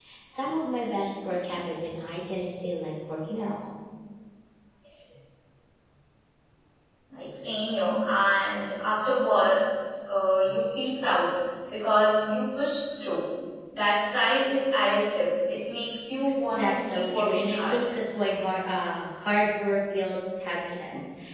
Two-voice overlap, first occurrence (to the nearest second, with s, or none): 17 s